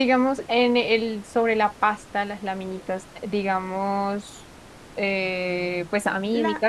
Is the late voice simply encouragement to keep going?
Yes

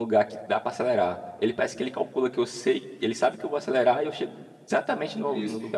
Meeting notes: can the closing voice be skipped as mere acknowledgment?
No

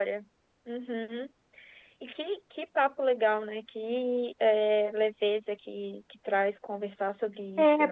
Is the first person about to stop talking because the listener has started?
Yes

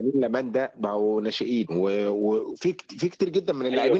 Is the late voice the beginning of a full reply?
Yes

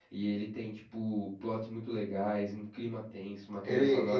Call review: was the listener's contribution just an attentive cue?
No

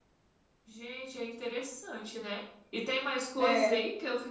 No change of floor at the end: Yes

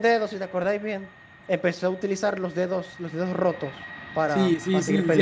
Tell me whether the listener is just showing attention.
No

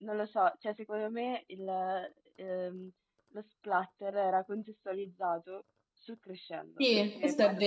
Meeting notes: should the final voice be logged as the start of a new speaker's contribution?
Yes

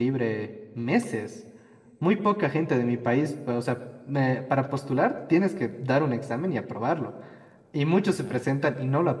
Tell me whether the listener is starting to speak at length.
No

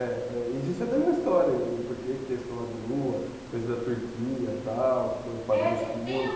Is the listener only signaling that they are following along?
No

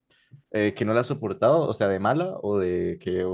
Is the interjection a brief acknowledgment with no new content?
No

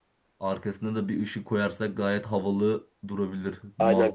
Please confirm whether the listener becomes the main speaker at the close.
Yes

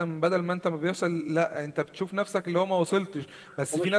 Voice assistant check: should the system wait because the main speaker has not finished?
Yes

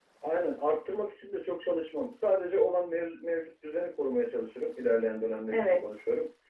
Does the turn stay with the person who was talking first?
Yes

